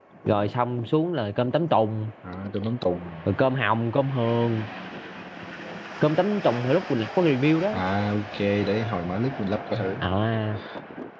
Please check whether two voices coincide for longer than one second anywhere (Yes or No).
No